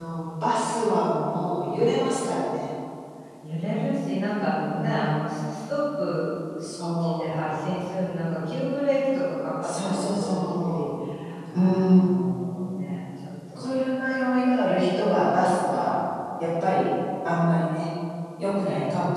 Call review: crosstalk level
present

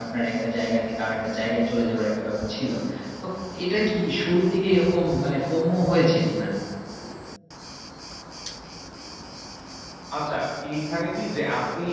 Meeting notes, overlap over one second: none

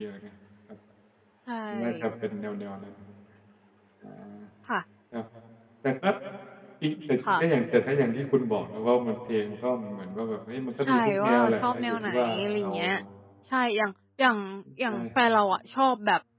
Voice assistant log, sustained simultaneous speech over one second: present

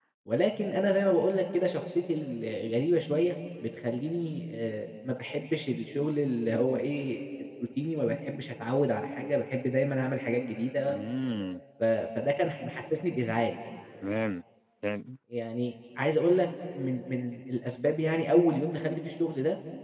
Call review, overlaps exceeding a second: none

